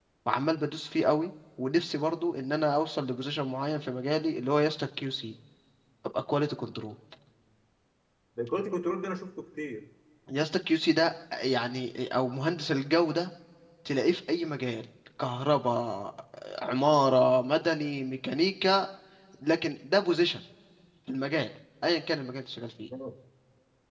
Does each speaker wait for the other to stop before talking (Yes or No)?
Yes